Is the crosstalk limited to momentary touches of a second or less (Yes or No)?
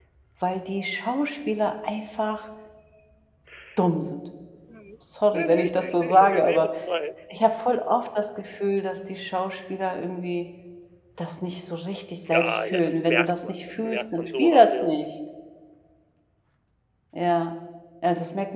No